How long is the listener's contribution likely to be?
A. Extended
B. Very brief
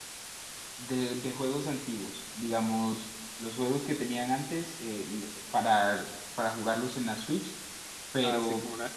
A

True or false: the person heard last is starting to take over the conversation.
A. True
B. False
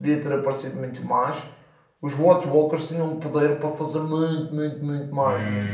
A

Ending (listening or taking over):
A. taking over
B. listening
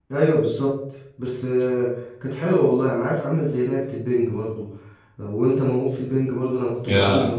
B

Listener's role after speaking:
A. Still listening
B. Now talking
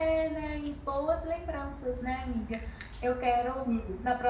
A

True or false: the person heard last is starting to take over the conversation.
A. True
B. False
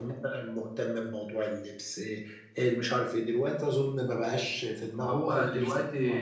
A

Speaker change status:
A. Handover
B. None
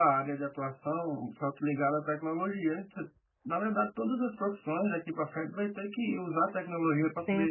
B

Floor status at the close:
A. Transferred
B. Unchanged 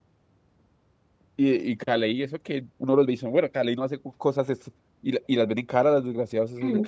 A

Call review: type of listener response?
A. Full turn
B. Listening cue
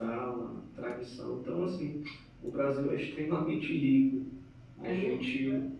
B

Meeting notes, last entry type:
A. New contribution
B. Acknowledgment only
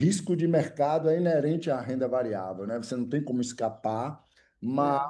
B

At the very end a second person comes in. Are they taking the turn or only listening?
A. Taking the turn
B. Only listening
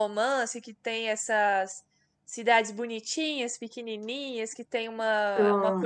B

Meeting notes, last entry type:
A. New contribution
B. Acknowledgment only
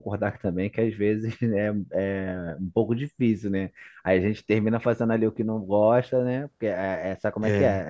B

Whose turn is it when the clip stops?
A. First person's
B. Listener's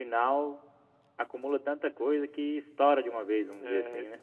B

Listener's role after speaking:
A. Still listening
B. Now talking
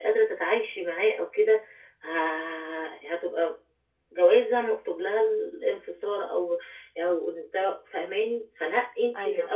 A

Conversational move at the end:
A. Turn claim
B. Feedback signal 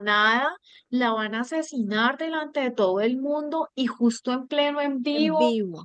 B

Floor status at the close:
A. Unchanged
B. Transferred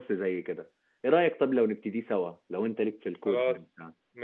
B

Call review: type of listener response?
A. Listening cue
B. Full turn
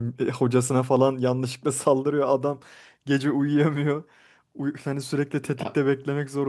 A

